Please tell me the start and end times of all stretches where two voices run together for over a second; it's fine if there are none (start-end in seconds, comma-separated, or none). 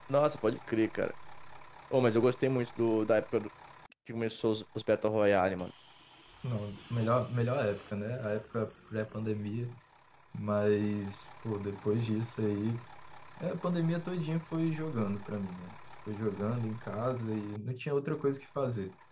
none